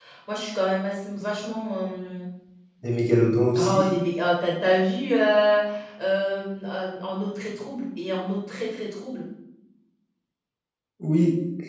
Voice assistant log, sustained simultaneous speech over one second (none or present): none